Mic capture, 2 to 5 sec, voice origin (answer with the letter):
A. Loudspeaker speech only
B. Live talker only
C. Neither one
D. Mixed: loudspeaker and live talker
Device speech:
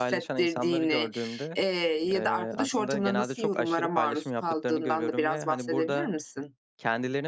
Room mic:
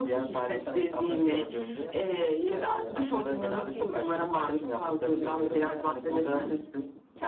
A